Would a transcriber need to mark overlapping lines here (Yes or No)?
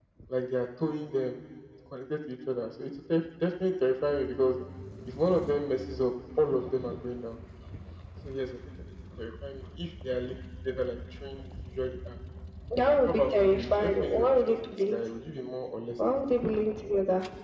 Yes